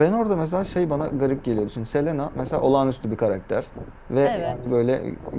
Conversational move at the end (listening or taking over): listening